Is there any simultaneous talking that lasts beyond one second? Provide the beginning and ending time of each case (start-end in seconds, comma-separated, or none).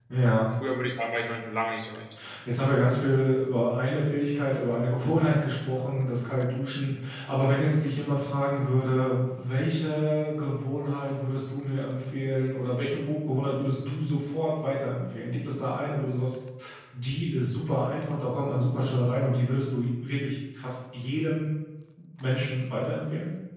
none